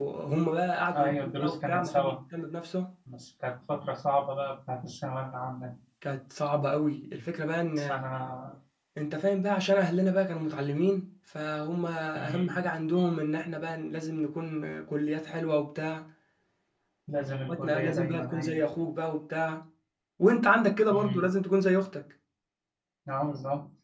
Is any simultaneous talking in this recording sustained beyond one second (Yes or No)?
Yes